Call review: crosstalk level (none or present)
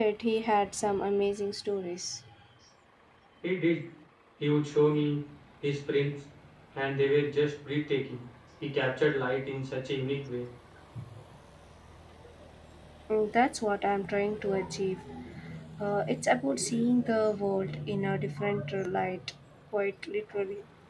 none